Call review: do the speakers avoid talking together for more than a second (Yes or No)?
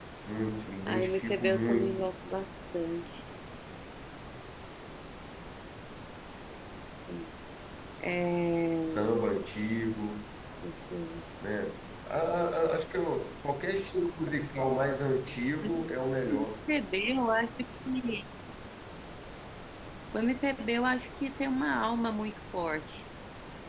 No